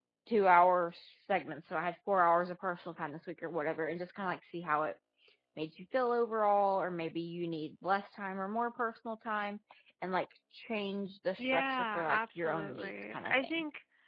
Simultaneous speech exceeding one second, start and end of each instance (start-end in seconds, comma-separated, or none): 11.4-13.5